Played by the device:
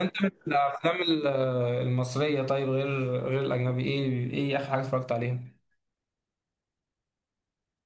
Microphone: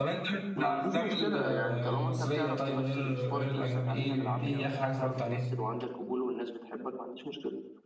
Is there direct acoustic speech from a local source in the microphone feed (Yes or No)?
Yes